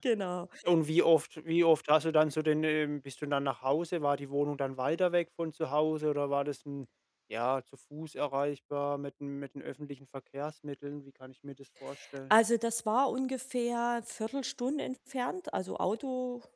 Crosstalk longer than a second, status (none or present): none